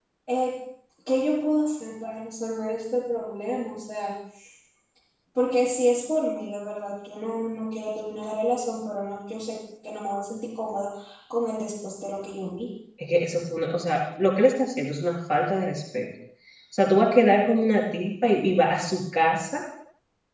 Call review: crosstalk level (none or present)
none